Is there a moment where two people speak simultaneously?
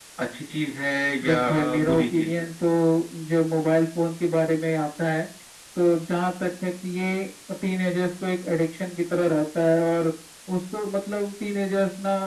Yes, from 1.2 s

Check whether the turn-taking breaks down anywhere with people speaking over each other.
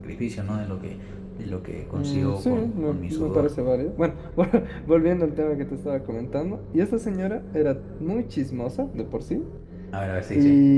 Yes, from 1.9 s

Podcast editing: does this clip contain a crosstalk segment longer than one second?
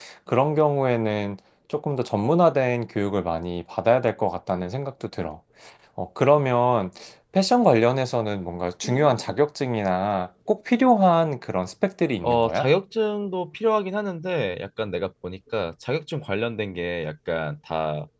No

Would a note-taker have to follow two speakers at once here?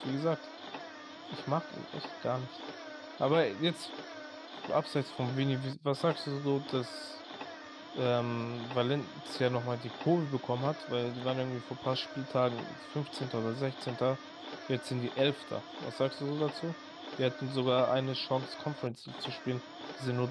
No

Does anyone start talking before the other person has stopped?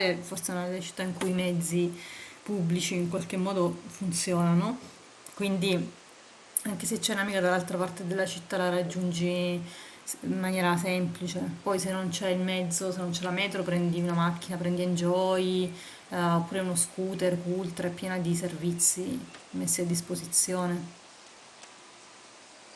No

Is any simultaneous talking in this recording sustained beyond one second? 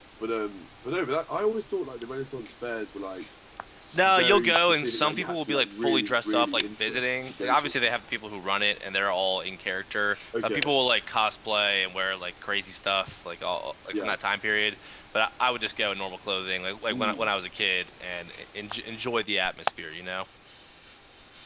Yes, from 3.9 s

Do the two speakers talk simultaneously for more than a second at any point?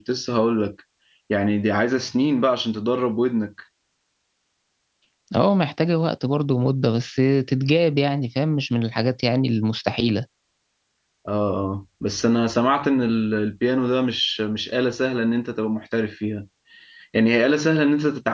No

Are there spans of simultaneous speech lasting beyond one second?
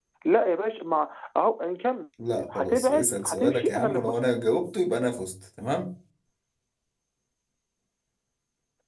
Yes, from 2.6 s

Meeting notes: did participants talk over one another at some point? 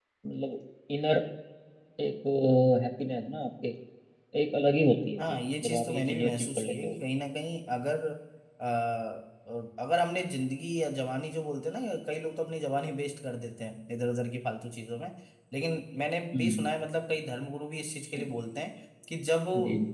Yes, from 5.2 s

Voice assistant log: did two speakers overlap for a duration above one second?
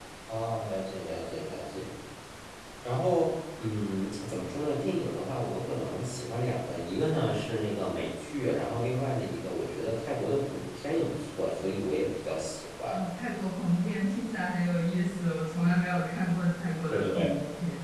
No

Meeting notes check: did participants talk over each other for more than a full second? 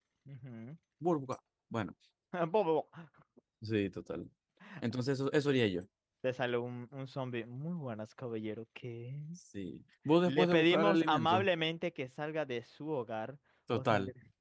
Yes, from 10.3 s

